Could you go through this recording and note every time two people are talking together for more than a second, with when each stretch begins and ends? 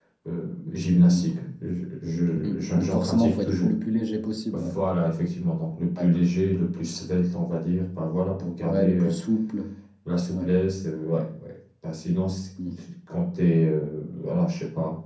2.4-3.7

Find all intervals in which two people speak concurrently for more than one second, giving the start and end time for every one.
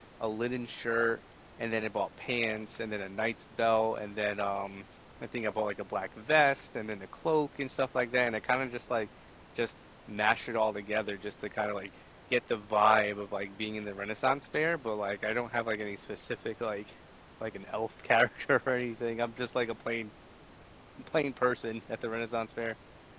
none

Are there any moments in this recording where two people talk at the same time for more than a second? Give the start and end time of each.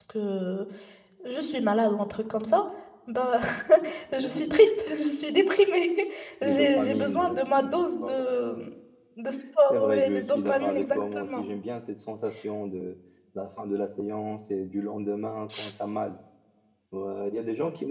6.4-8.3, 9.7-11.4

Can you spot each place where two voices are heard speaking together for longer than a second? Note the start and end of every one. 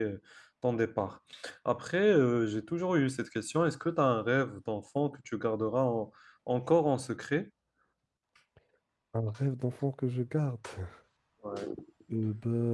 none

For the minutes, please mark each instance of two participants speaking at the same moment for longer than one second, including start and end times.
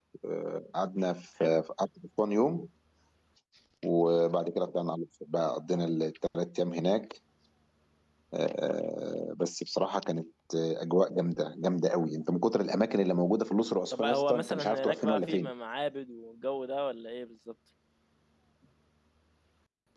13.9-15.5

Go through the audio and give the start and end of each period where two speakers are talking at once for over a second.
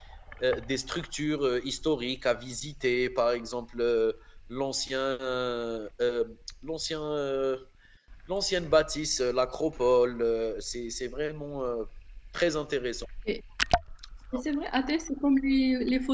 none

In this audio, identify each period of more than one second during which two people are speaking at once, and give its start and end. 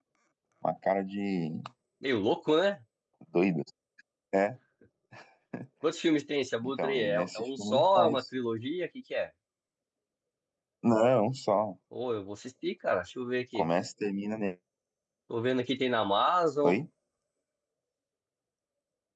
6.6-8.2

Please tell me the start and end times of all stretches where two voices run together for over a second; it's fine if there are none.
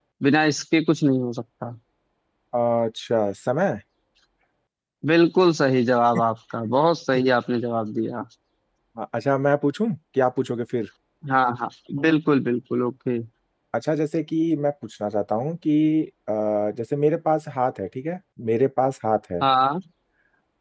none

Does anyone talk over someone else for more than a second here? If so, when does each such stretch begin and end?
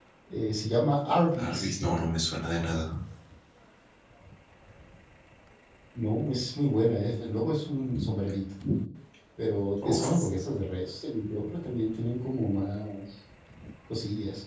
none

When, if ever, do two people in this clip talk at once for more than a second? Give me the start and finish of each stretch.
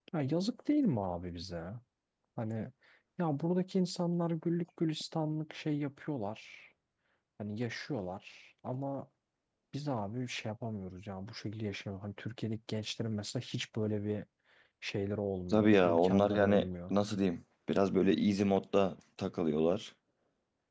15.5-16.9

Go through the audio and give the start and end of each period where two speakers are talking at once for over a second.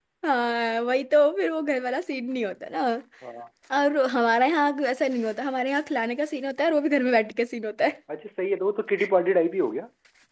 none

